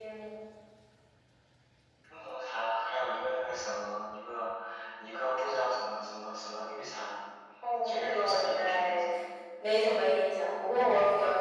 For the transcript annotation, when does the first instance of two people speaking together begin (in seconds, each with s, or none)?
7.8 s